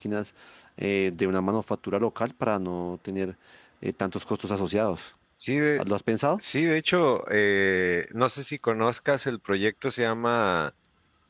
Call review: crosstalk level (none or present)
none